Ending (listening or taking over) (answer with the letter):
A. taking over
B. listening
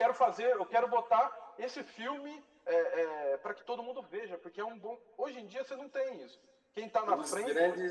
A